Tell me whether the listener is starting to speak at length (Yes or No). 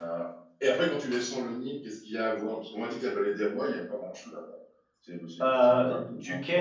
Yes